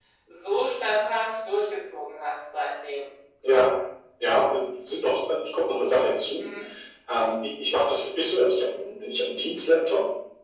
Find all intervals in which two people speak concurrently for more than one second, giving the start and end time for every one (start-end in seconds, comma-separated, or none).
none